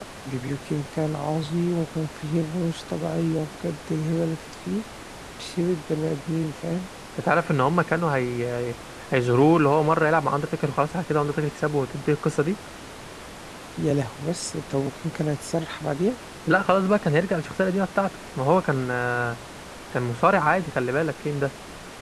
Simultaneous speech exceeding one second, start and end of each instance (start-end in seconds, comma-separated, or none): none